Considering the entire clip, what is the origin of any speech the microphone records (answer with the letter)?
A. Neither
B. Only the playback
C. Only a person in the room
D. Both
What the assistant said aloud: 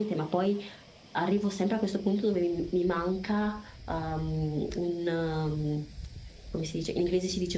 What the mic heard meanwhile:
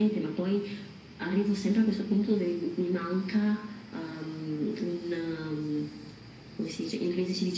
B